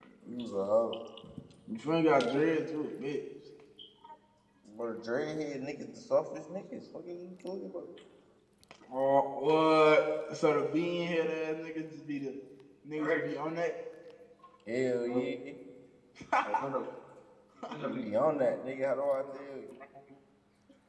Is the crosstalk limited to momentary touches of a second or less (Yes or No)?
Yes